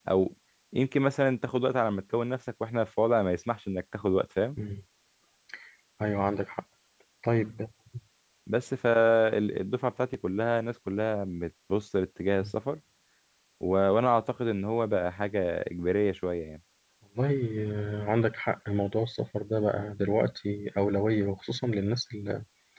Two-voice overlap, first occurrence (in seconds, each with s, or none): none